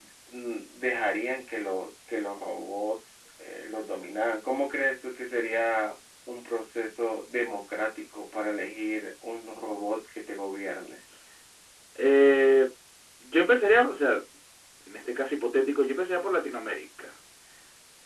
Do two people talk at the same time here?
No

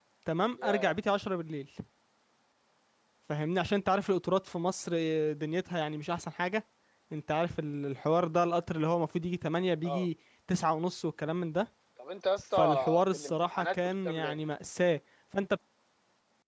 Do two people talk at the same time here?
Yes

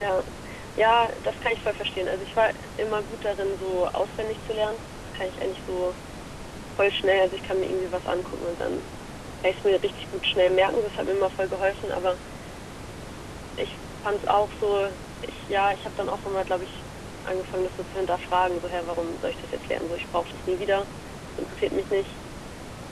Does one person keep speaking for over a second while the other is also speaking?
No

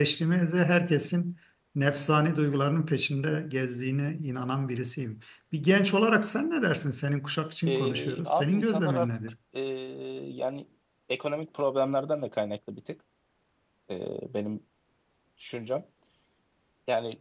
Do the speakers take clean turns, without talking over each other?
No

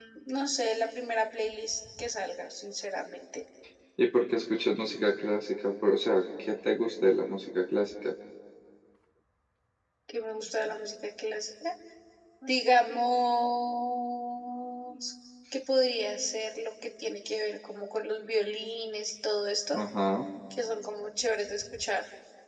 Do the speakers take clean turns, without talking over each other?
Yes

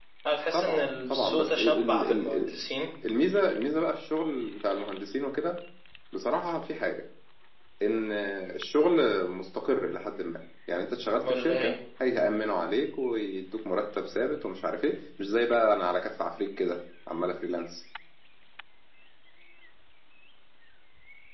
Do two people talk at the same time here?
Yes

